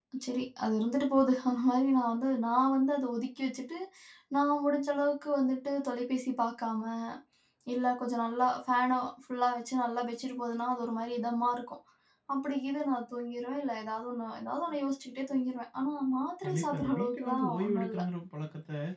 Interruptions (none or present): present